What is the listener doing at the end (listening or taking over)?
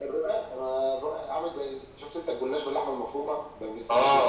taking over